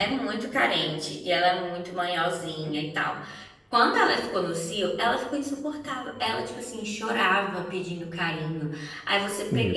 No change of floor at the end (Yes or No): Yes